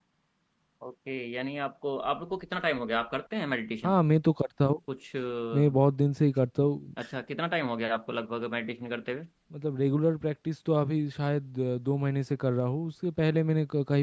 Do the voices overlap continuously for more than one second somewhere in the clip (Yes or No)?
No